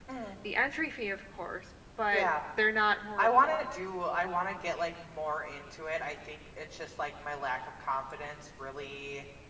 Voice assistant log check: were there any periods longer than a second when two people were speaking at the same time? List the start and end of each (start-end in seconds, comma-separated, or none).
none